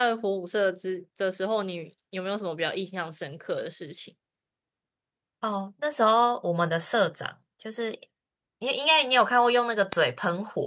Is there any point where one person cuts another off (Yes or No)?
No